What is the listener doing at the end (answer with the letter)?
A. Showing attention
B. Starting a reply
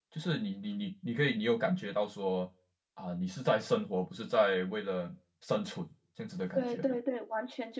B